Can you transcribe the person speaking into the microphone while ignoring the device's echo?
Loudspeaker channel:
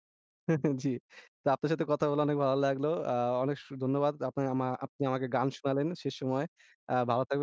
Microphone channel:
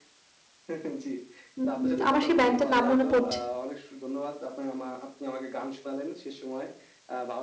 উম উম আমার সেই band টার নাম মনে পড়ছে

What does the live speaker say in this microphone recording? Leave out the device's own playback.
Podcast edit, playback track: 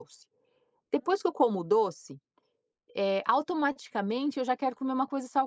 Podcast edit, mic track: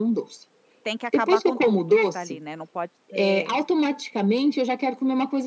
tem que acabar com tudo que tá ali, né, não pode ter

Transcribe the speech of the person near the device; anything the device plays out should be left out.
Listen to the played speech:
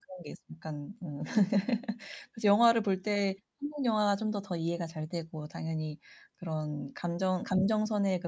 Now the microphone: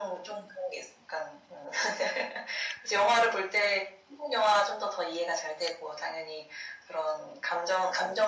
none

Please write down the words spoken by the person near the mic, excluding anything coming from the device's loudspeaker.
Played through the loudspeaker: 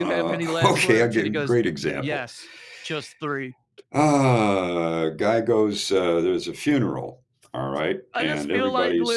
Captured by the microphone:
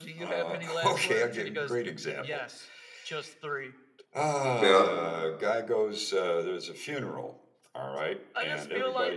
Yeah.

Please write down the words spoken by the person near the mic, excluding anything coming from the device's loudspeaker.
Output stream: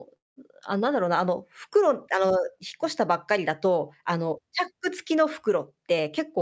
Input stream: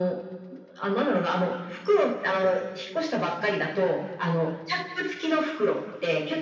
none

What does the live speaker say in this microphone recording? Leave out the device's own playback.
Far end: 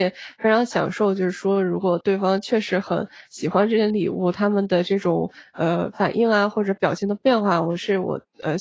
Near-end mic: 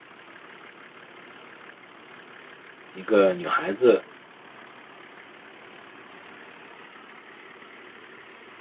一个女孩子，

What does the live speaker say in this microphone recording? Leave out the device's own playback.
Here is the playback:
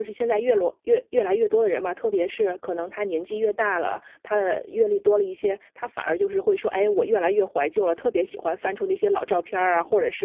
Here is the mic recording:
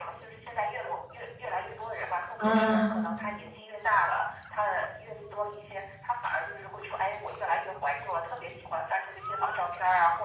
啊。

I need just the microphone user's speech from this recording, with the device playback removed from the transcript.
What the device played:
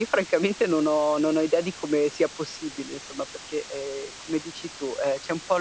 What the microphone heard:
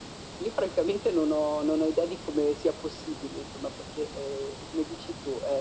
none

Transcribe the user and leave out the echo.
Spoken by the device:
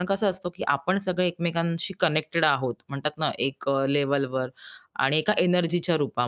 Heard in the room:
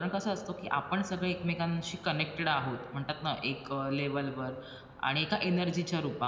none

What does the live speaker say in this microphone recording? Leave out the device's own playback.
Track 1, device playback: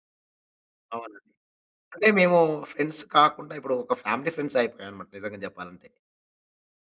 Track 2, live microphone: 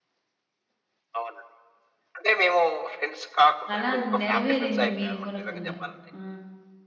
చాలా నెరవేరింది మీ మూలకంగ. ఆ!

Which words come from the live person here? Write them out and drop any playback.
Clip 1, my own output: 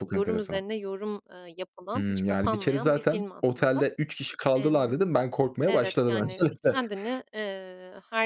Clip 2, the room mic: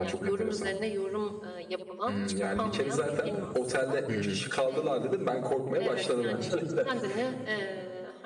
Hı hı.

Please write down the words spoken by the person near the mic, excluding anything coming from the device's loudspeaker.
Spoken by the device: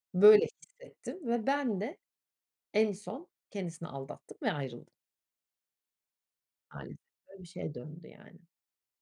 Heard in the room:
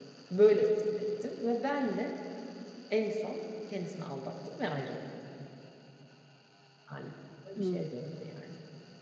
Hımm.

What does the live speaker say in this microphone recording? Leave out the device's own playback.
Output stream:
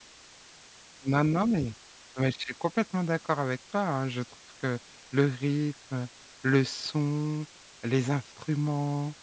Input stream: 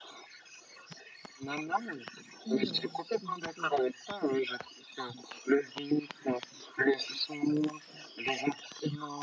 Non, du tout

